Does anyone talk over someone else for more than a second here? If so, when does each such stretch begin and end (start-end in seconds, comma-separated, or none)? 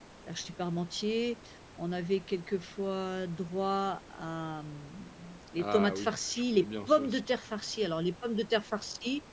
5.6-7.2